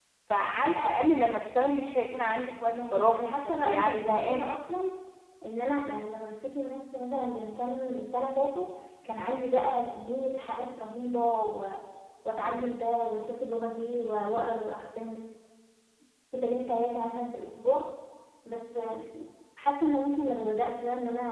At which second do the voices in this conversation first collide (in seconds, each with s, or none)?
2.7 s